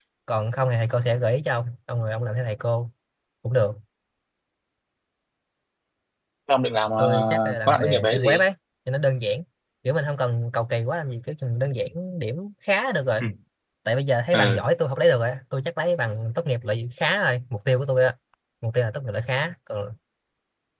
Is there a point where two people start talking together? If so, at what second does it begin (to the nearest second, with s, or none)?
7 s